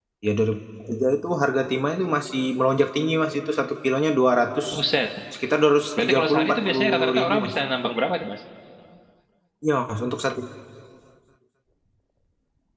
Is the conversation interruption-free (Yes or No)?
No